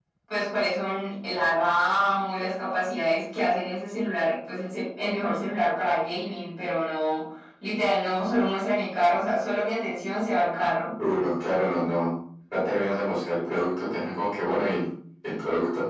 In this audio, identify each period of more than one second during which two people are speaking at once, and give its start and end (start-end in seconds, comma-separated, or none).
none